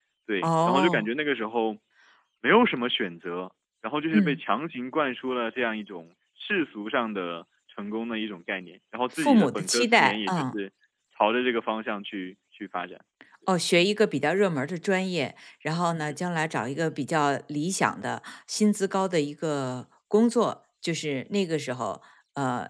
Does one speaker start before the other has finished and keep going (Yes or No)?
Yes